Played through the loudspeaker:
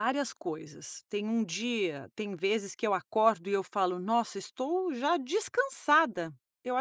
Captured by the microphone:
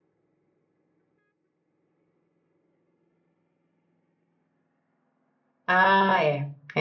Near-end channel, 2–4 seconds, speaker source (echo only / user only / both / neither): neither